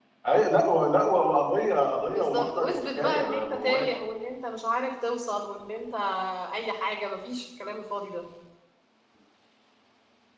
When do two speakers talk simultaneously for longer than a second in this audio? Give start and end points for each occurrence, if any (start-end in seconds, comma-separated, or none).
2.1-3.9